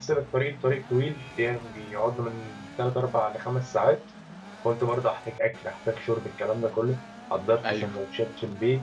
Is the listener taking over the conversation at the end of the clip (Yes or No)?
No